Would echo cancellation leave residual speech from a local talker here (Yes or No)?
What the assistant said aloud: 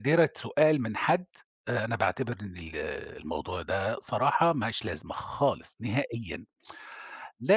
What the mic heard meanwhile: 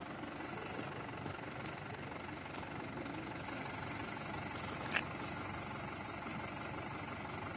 No